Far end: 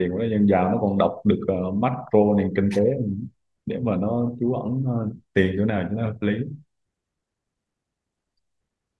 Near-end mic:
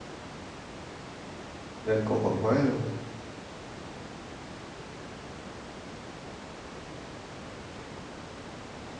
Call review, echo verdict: none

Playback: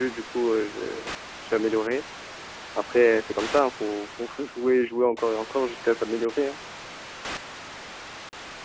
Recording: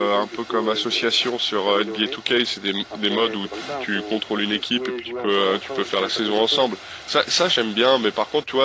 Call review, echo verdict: present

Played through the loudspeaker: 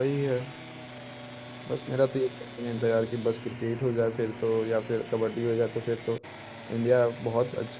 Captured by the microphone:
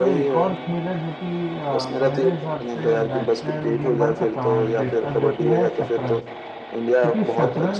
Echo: present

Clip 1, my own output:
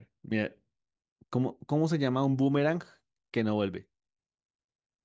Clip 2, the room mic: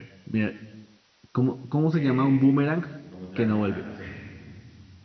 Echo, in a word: present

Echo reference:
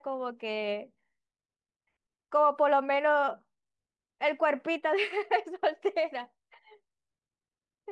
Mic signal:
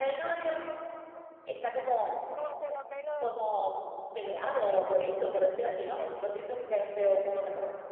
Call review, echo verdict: present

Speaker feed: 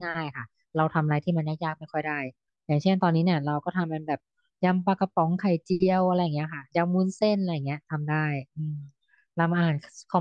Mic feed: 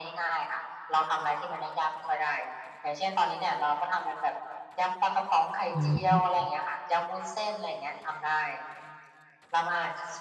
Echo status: present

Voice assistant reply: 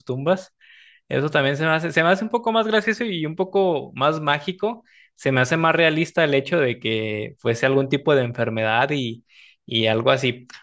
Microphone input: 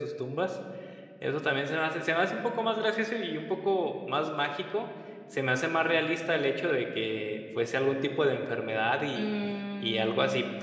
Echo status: present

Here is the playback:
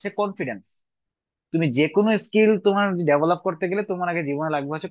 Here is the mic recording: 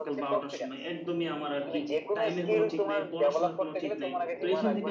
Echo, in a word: present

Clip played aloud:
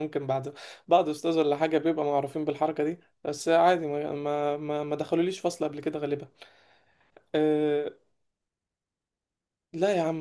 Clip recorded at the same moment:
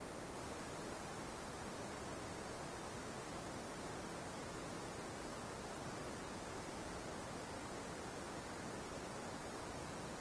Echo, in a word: none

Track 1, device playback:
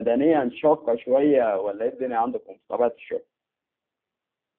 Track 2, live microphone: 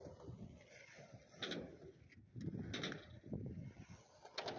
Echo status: none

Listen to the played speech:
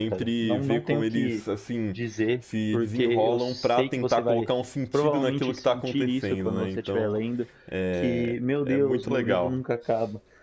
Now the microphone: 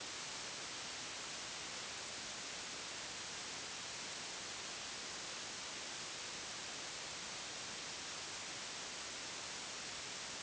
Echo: none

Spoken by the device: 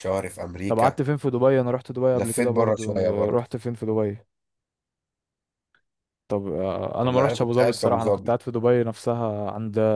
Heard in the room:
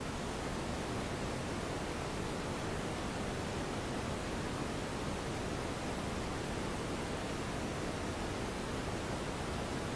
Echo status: none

